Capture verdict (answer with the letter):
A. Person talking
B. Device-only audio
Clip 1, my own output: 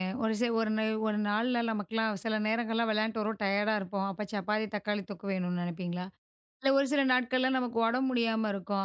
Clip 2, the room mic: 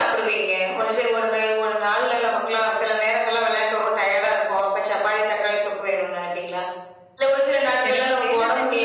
A